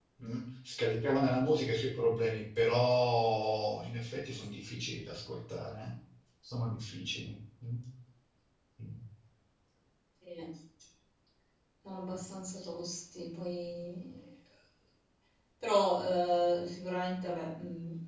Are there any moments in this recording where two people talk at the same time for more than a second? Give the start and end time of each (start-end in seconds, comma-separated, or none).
none